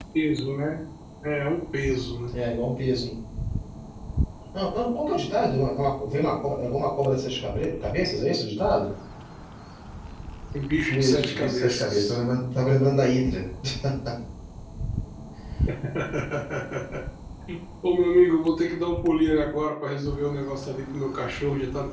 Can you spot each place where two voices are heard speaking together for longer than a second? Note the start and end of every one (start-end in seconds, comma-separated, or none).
10.9-12.2